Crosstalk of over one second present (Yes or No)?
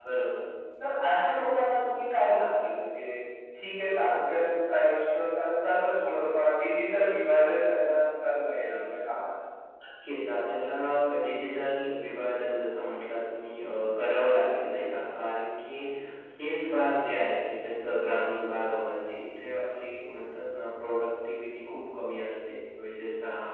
No